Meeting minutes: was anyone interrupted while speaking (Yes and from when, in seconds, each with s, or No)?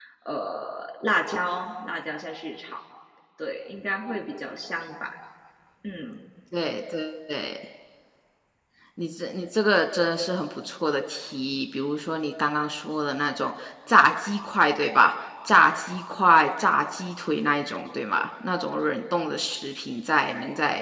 No